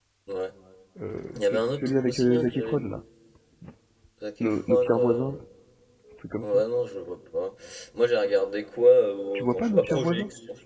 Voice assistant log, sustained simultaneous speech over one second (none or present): present